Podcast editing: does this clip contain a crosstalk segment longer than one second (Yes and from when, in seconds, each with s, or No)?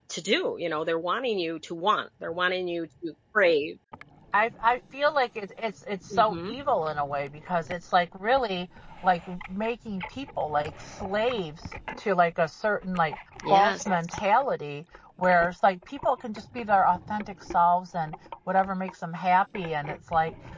No